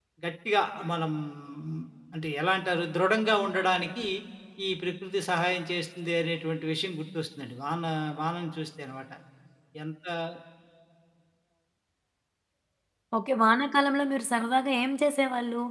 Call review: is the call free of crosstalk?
Yes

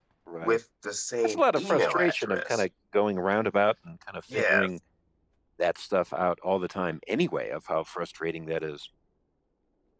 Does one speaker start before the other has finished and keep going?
Yes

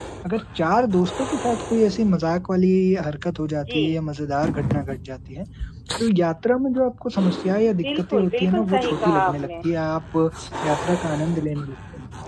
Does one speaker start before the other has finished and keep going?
Yes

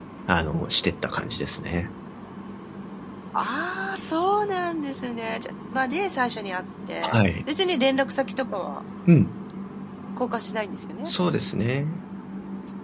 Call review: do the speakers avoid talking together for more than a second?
Yes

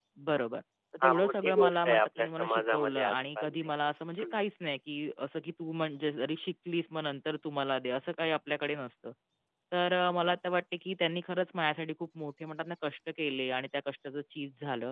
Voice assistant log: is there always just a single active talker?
No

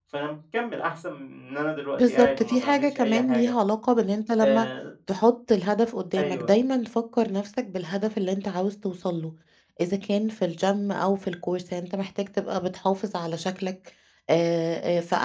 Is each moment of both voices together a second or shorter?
No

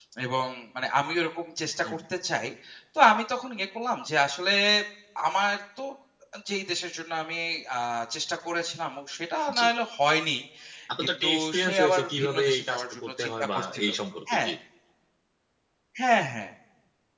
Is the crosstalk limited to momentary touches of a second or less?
No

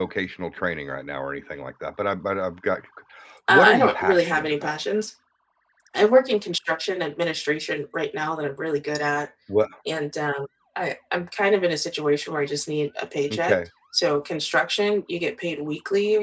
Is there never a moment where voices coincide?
No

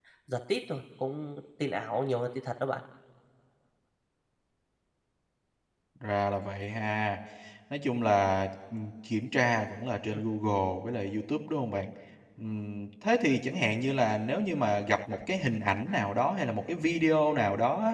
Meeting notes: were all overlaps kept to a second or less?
Yes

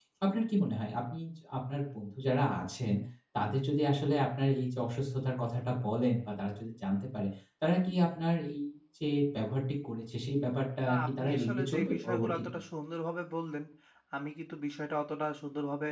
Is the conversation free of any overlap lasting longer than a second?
No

